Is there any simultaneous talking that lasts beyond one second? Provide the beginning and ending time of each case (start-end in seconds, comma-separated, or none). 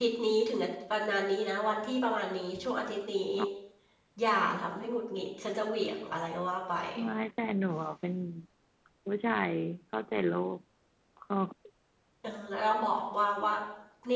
none